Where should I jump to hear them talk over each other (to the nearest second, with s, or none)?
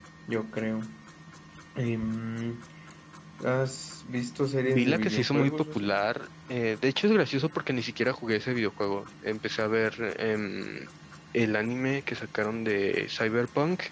5 s